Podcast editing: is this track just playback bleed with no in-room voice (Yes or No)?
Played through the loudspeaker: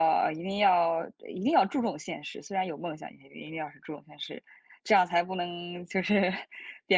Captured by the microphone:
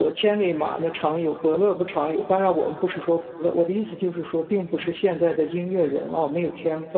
No